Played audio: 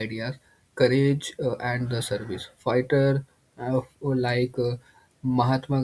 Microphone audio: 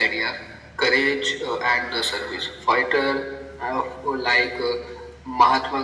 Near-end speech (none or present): none